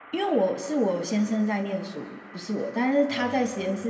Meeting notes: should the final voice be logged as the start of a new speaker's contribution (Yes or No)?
No